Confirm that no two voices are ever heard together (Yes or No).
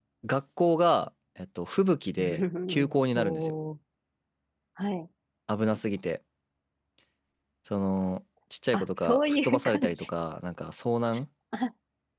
No